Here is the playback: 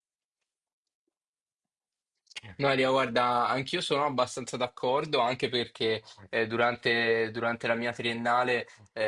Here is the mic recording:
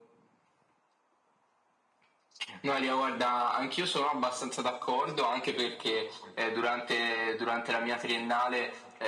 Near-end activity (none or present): none